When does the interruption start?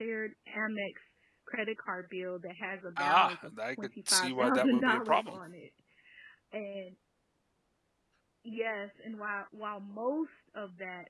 3.0 s

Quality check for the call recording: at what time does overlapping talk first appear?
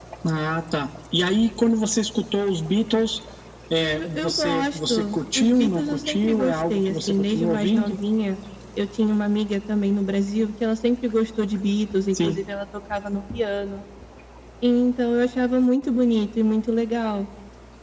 3.8 s

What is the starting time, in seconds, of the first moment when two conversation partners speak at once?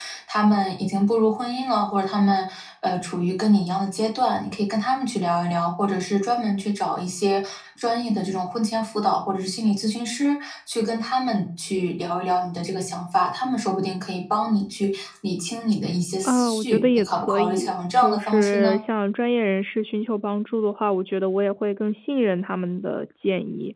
16.2 s

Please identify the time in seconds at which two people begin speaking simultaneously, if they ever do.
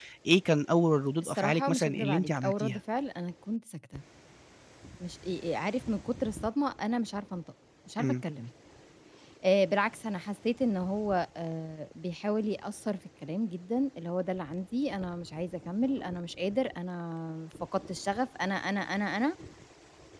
1.2 s

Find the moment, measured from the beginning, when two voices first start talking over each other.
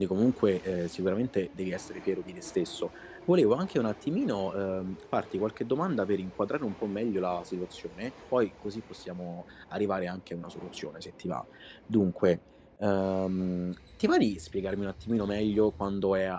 none

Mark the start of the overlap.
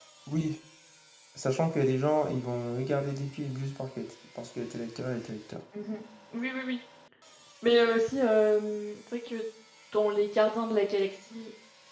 none

